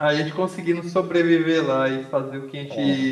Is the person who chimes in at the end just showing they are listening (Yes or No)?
Yes